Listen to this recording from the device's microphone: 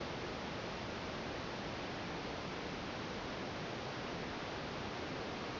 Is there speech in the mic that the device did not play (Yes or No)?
No